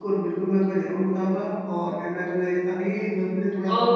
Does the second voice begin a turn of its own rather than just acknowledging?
No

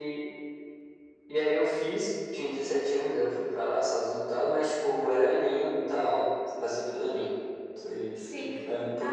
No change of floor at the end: No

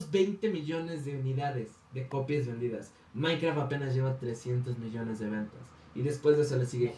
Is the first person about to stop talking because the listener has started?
No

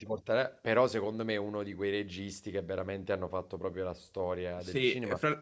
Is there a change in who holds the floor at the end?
Yes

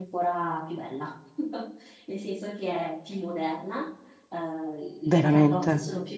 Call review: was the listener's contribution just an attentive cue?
Yes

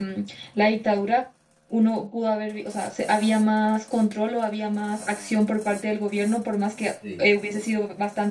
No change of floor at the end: Yes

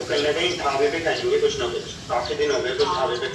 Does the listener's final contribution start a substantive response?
Yes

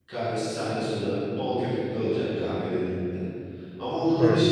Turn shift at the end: No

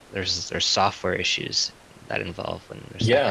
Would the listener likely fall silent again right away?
No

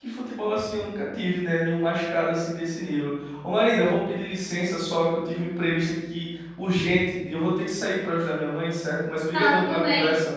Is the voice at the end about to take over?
Yes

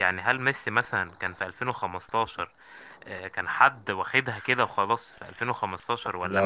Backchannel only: Yes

